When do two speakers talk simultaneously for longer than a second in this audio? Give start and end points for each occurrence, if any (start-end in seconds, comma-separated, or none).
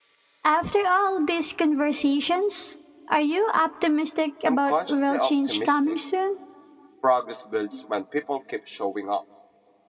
4.5-6.0